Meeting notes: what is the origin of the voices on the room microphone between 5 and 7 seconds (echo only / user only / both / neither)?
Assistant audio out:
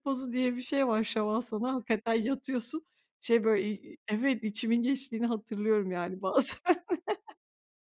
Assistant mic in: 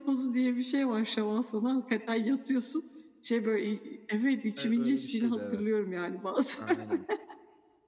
both